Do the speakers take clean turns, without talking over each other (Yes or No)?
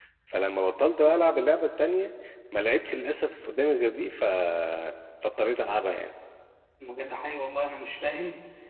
Yes